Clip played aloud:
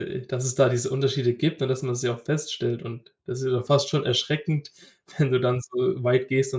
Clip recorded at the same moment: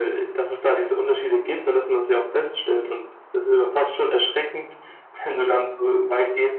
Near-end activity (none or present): none